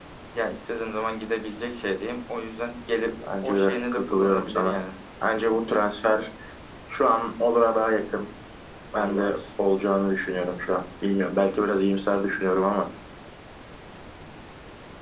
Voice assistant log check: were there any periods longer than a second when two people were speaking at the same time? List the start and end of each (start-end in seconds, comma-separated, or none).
3.3-4.8